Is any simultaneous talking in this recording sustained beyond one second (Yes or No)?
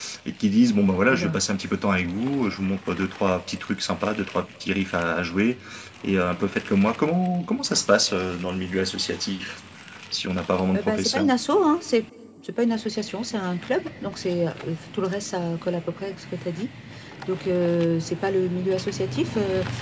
No